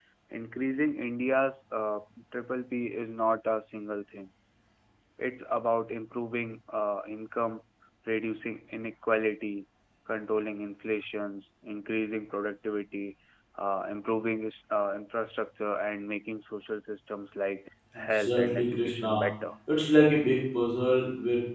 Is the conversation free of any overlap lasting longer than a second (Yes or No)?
No